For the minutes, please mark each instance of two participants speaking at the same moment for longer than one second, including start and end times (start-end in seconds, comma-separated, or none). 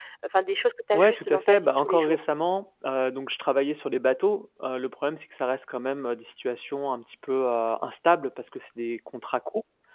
0.9-2.2